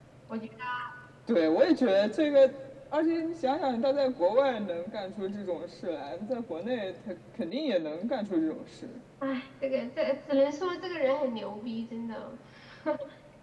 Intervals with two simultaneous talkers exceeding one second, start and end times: none

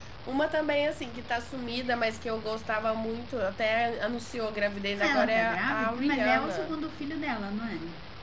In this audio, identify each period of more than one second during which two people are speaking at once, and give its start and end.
5.0-6.7

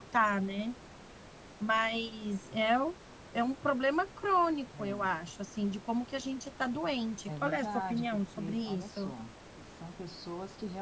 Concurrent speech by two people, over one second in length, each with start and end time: 7.3-9.1

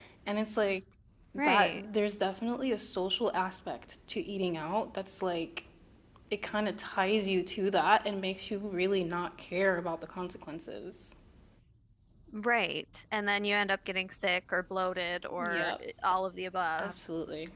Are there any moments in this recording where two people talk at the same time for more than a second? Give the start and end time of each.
none

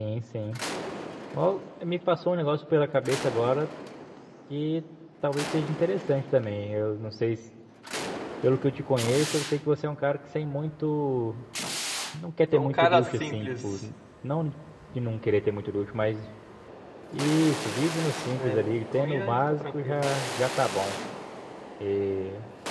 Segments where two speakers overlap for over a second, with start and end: 12.5-13.8, 18.3-20.0

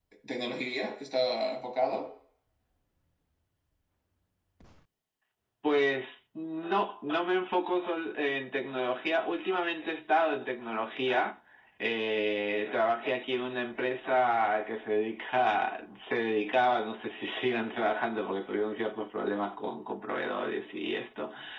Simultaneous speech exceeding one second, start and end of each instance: none

